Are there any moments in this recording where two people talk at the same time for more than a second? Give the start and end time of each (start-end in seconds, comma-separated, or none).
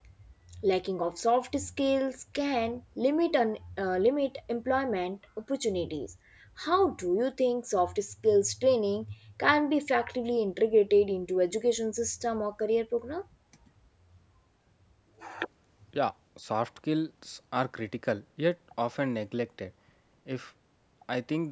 none